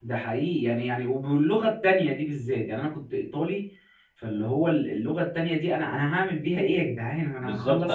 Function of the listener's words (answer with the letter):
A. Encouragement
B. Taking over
B